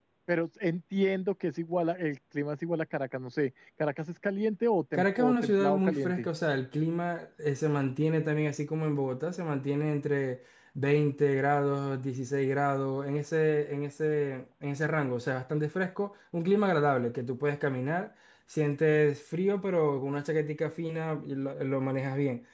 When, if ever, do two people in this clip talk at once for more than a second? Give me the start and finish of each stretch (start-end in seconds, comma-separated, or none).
4.9-6.3